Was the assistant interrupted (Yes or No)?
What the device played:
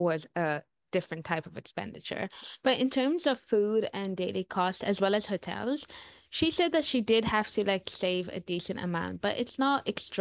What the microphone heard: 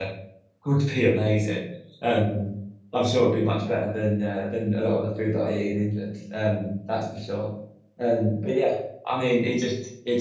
Yes